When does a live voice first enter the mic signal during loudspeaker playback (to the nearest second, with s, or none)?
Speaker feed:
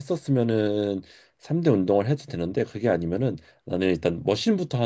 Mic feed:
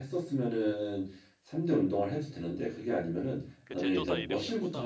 4 s